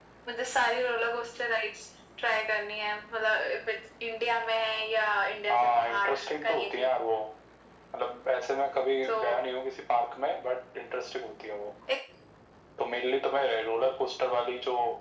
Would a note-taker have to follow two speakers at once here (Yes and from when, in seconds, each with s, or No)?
Yes, from 5.5 s